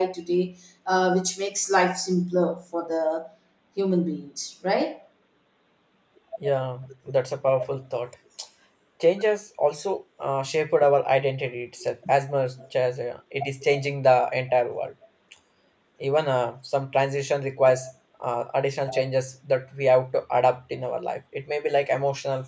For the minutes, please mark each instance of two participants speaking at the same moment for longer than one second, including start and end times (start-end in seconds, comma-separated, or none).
none